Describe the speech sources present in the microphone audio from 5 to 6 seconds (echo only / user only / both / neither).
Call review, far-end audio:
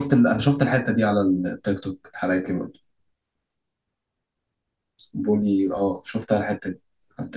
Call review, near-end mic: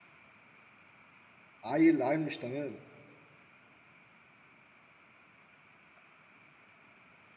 neither